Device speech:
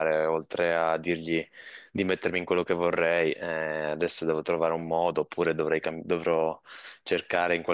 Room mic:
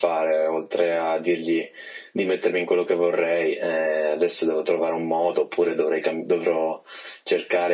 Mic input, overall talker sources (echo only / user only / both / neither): echo only